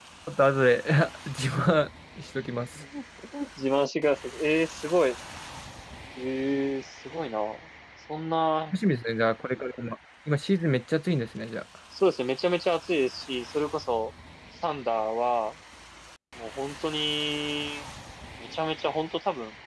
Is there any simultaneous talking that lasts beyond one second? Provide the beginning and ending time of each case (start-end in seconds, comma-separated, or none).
none